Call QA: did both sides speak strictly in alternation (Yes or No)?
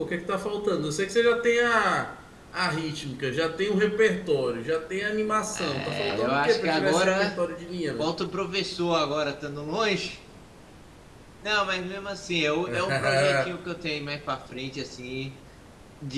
No